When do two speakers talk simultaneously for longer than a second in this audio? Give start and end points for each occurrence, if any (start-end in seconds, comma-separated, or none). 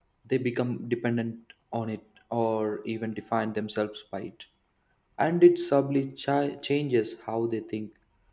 none